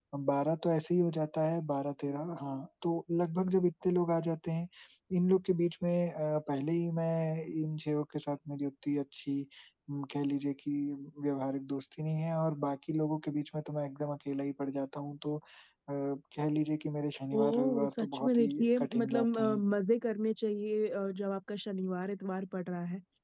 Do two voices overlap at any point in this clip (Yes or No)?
Yes